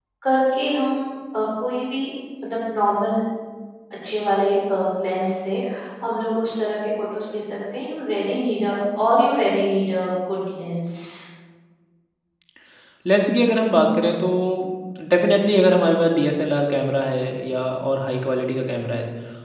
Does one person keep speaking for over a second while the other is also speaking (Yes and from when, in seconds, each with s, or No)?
No